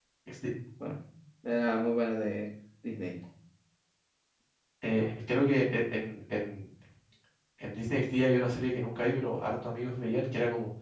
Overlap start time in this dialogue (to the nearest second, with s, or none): none